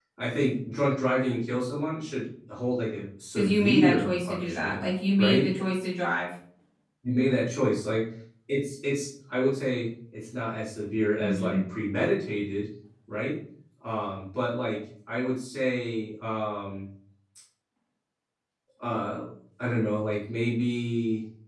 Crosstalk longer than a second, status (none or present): present